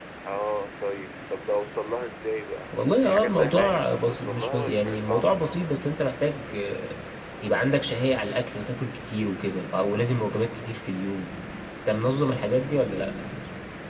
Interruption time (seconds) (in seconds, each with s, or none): 3.0 s